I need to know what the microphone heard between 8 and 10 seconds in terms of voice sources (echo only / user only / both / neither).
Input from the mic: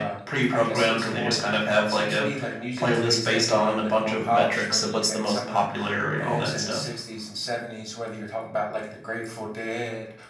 echo only